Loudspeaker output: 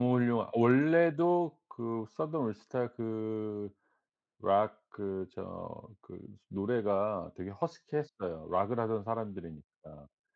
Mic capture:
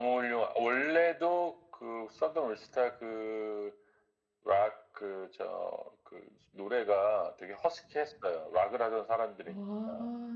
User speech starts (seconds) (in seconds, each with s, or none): 9.4 s